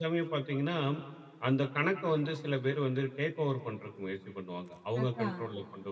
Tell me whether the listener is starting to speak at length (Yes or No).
No